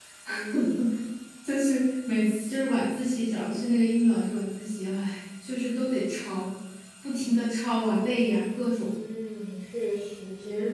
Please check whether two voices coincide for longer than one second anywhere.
No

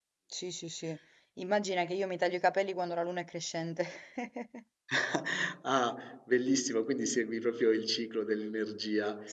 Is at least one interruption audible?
No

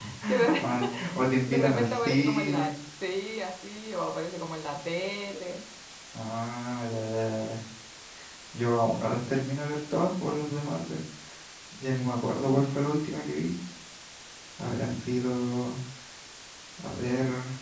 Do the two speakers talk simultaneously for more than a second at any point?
Yes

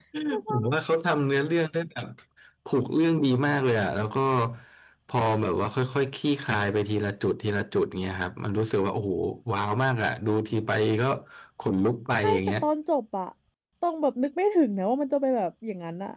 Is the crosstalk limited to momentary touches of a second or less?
Yes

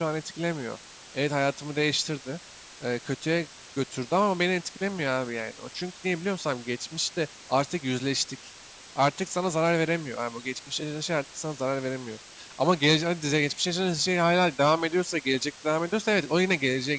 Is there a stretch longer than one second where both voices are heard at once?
No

